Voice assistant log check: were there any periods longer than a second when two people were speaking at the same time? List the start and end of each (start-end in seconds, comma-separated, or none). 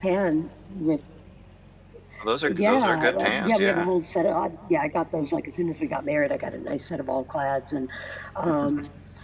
2.5-3.9